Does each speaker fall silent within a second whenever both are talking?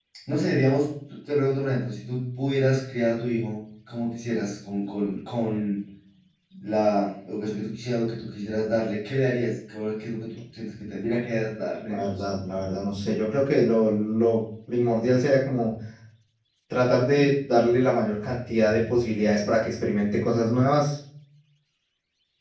Yes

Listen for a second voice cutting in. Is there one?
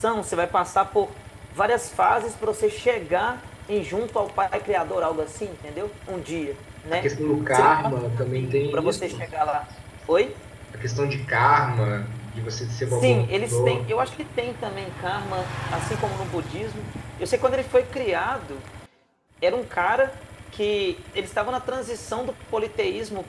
Yes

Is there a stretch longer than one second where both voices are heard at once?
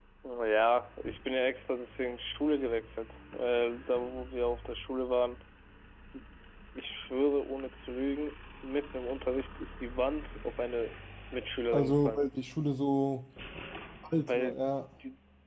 No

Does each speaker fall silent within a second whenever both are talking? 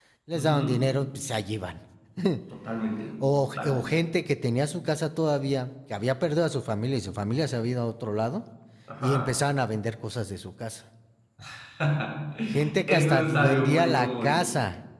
No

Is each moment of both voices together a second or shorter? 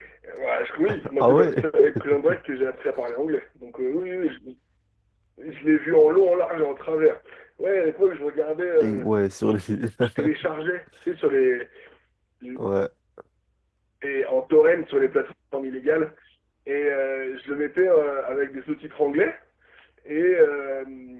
Yes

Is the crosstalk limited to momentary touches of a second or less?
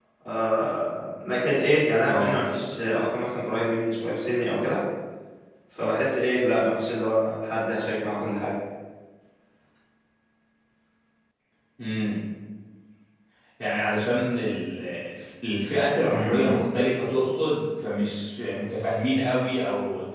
Yes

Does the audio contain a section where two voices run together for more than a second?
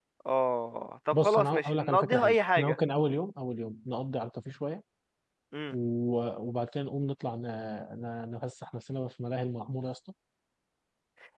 Yes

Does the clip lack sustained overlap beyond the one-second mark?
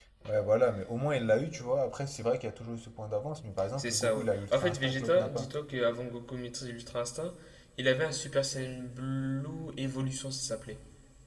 No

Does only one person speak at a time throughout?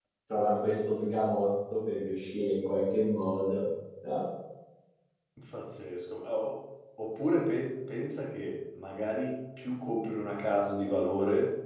Yes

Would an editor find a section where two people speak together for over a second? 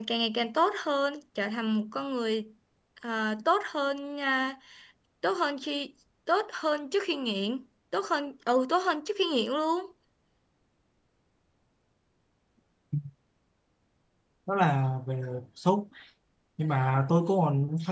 No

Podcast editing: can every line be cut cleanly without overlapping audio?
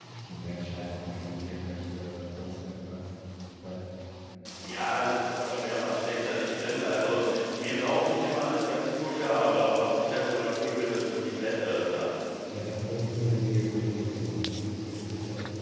Yes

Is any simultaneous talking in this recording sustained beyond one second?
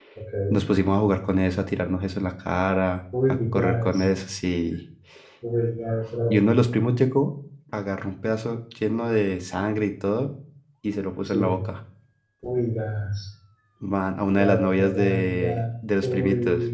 Yes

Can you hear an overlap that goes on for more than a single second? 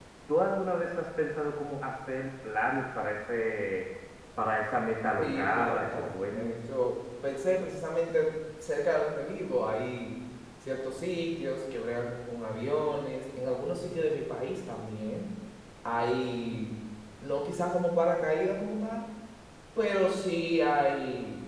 Yes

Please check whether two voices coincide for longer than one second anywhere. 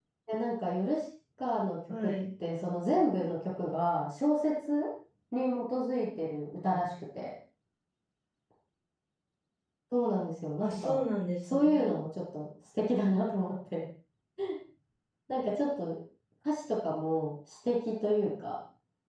No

